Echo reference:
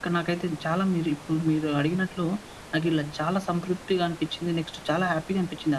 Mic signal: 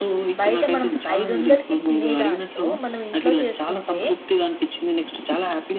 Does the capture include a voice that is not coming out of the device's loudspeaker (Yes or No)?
Yes